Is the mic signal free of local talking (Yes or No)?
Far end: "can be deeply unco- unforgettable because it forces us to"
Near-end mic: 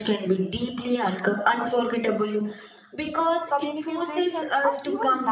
No